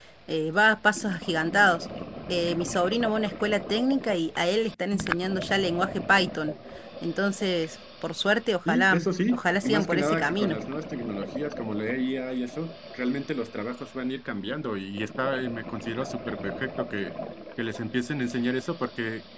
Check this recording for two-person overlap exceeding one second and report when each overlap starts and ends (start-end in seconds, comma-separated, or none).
8.7-10.6